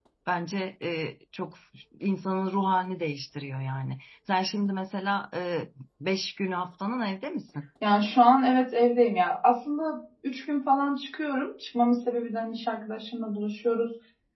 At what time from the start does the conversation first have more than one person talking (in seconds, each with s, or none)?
none